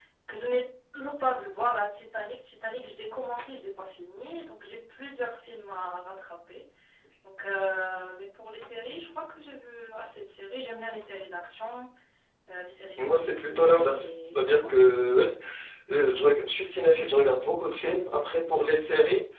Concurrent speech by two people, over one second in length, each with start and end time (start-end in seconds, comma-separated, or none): 13.0-14.6